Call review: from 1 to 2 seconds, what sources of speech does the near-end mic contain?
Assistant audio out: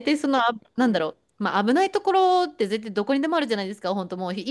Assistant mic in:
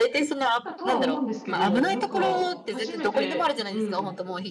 both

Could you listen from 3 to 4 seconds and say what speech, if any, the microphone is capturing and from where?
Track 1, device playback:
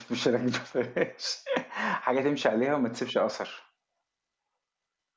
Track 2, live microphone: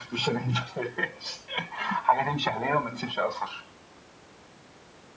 echo only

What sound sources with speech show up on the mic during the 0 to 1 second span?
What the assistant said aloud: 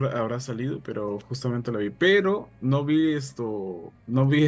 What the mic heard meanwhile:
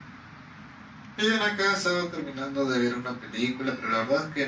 neither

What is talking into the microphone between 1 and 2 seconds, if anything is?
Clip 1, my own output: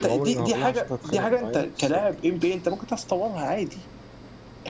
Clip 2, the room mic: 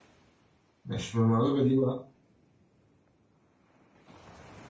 user only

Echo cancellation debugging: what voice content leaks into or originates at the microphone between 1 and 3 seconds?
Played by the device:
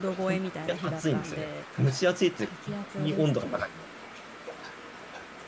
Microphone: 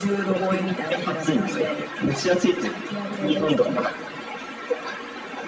echo only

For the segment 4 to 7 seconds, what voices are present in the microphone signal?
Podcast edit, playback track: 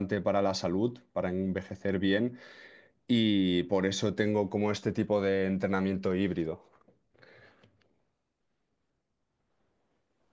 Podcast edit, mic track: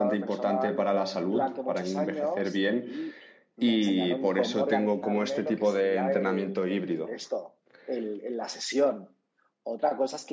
both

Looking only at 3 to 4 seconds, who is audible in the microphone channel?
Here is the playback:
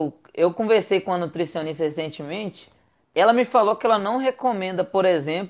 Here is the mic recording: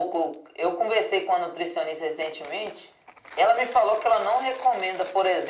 echo only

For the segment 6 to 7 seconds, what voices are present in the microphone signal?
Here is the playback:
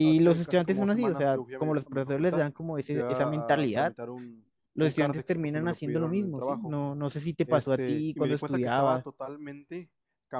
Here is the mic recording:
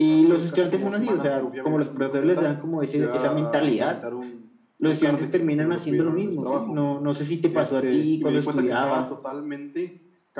echo only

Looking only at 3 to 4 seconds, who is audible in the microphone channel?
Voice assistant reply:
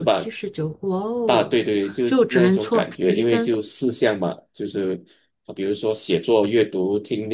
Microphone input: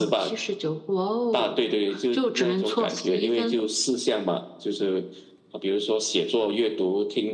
echo only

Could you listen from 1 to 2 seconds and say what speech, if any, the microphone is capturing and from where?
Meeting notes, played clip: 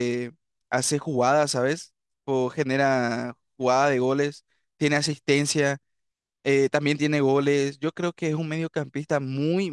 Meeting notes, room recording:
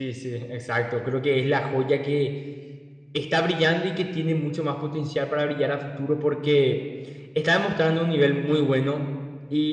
user only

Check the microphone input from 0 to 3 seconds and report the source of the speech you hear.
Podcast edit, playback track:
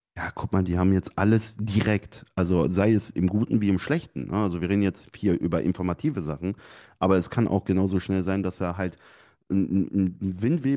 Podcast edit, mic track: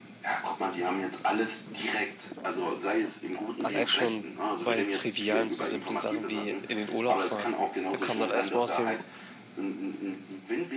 echo only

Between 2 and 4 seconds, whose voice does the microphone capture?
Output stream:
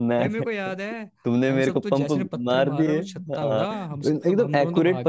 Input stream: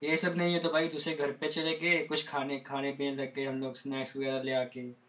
user only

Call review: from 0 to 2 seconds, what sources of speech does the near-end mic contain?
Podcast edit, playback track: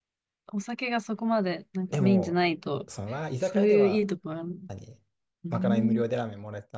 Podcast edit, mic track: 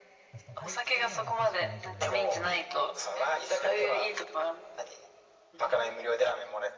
both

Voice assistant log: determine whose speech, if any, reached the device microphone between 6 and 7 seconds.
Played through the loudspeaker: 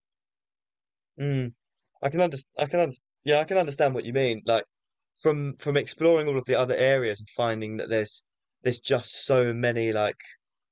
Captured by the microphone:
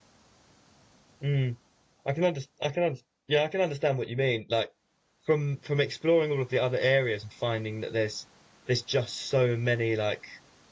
echo only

